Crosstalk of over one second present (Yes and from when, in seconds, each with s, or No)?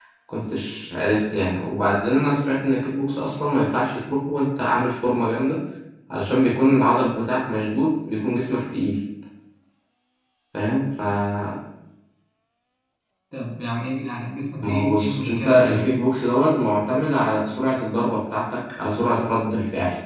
Yes, from 14.6 s